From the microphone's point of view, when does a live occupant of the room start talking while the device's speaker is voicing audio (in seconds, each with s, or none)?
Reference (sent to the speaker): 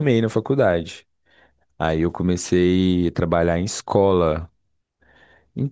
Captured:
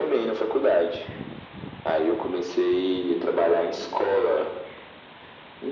none